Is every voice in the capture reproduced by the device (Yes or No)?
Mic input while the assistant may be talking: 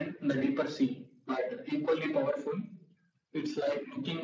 Yes